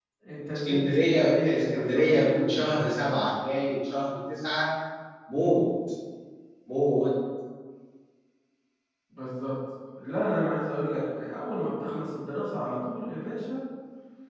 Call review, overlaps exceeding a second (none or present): present